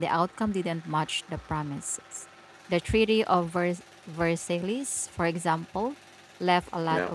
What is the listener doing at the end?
listening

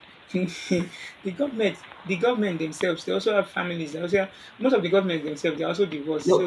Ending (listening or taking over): taking over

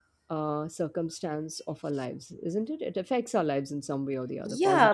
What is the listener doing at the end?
taking over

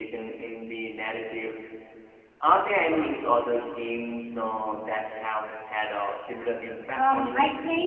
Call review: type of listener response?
taking over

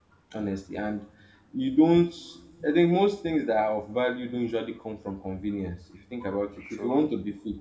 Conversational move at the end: listening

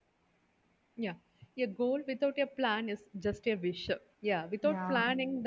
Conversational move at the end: listening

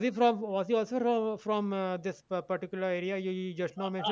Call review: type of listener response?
taking over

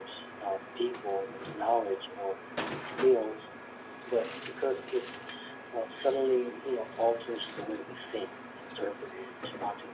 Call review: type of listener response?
listening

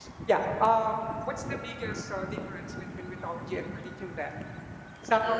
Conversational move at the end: listening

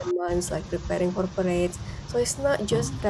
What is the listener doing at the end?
listening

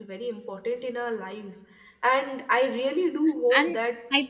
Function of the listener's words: taking over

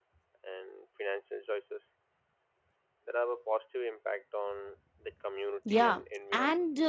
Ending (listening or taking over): taking over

